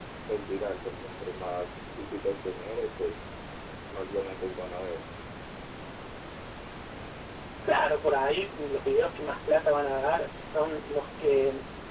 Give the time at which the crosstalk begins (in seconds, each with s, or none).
none